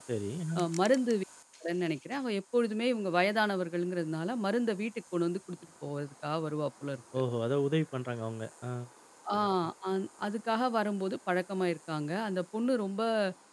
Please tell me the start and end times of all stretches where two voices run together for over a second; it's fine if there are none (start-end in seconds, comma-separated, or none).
none